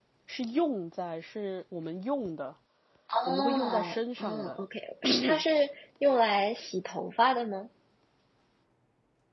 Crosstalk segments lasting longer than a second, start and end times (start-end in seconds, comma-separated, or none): 3.3-4.6